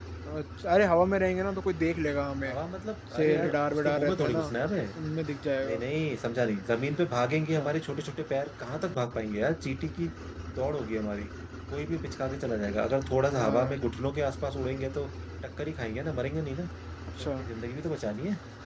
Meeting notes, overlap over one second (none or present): present